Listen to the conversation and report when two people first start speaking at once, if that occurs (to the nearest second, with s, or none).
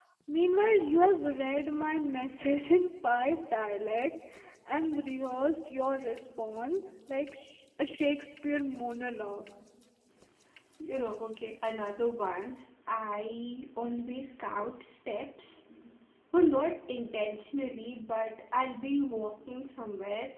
none